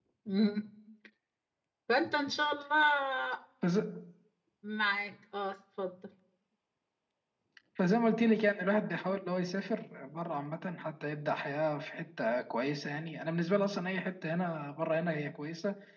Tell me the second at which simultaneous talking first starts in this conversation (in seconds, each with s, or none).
none